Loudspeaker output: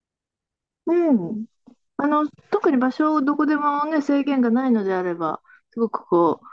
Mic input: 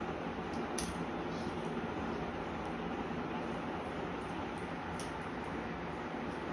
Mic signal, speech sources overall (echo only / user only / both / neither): neither